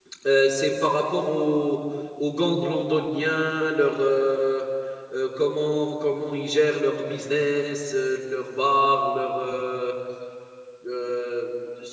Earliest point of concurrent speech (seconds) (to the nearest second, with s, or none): none